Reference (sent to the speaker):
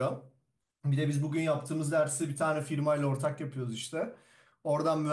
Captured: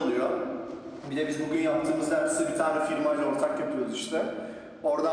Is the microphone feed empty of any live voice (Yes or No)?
Yes